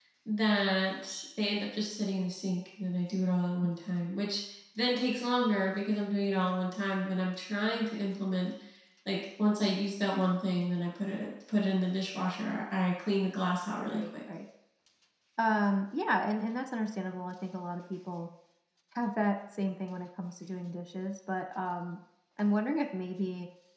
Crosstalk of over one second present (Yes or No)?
No